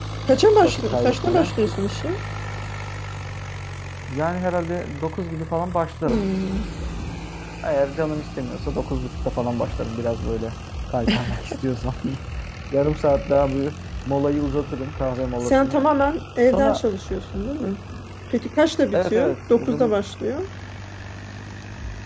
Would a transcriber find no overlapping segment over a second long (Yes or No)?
No